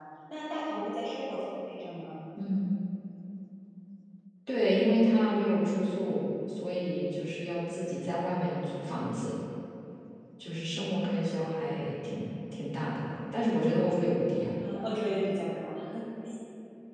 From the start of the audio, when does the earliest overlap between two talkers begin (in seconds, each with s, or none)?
none